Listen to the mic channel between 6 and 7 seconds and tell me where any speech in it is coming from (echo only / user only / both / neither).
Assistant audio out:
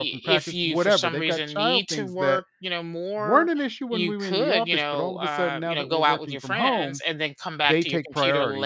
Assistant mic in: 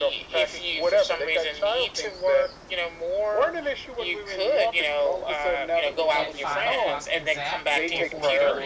both